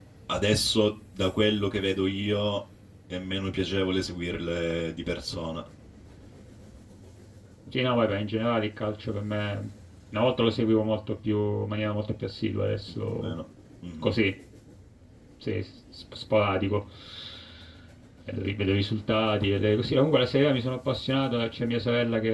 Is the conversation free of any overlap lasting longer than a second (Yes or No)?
Yes